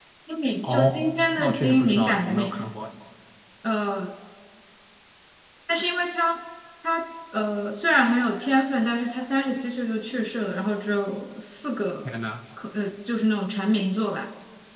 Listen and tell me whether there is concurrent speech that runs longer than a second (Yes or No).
Yes